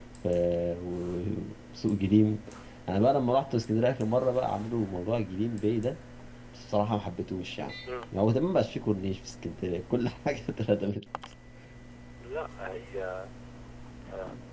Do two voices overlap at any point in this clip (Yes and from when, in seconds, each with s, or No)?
No